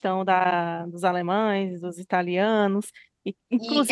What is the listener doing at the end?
taking over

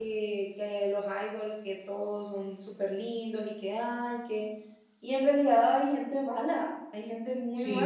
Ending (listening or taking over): taking over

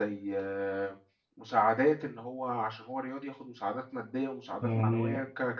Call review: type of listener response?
listening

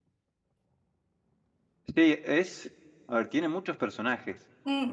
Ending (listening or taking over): taking over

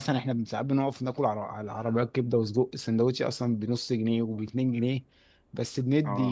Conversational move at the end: listening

